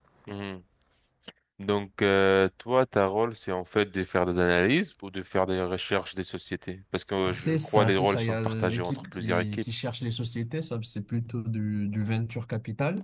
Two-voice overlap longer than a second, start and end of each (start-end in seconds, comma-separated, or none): 7.3-9.6